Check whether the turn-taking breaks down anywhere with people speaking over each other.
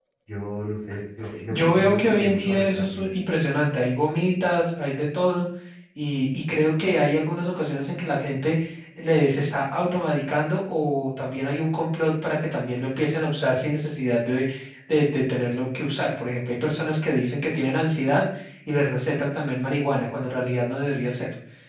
Yes, from 1.5 s

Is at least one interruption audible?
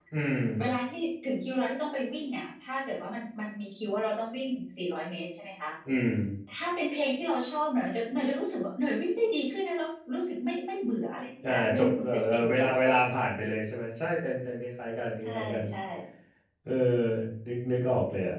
Yes, from 11.4 s

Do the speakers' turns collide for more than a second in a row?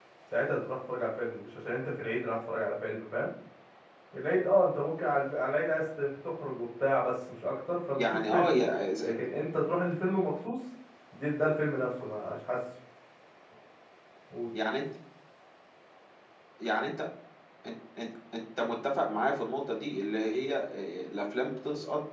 No

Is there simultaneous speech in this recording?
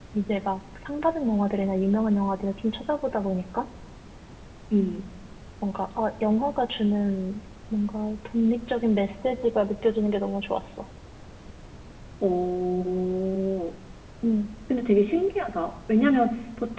No

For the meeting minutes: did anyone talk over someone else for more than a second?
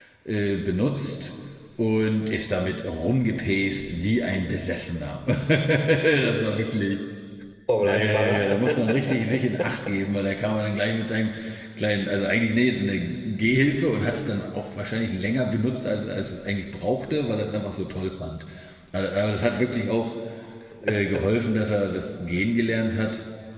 Yes, from 7.8 s

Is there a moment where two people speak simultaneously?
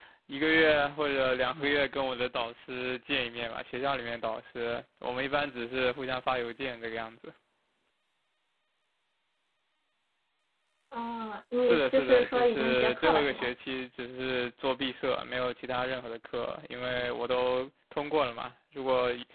Yes, from 11.6 s

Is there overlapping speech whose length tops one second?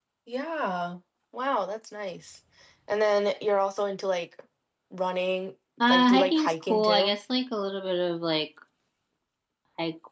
Yes, from 5.8 s

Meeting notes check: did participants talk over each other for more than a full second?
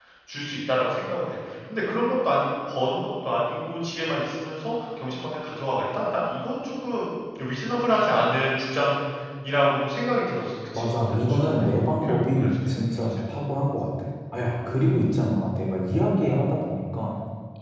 Yes, from 10.7 s

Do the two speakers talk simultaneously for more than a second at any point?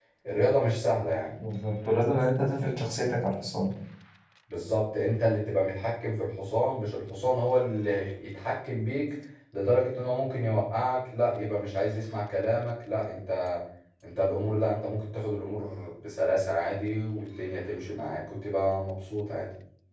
No

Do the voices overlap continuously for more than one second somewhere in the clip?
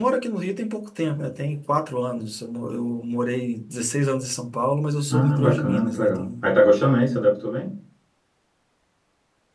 Yes, from 5.1 s

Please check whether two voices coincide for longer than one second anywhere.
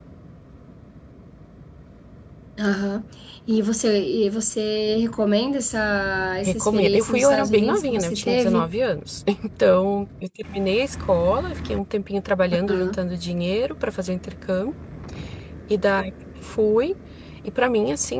Yes, from 6.5 s

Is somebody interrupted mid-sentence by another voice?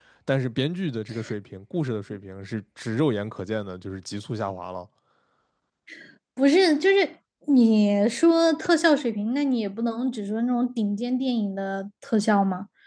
No

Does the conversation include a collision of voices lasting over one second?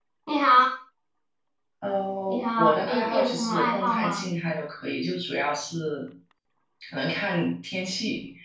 Yes, from 2.3 s

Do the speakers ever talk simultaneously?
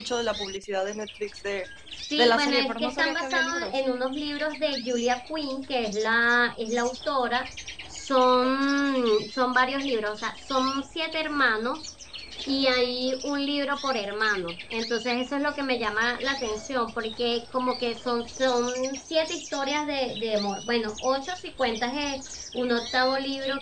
Yes, from 2.2 s

